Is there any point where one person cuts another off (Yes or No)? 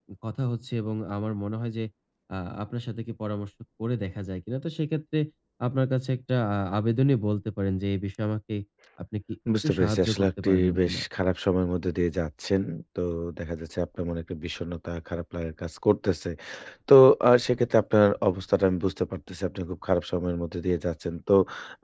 Yes